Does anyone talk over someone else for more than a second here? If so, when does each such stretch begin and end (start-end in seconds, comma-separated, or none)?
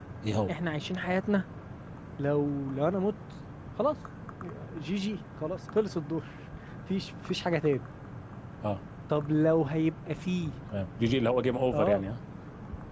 none